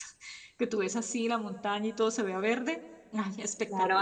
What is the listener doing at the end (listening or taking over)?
taking over